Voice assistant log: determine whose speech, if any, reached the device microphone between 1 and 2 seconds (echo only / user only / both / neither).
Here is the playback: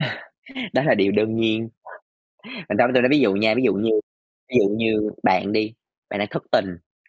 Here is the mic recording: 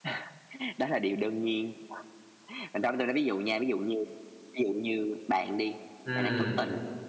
echo only